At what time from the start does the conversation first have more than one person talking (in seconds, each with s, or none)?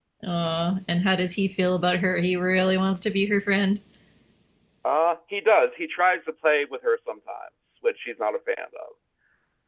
none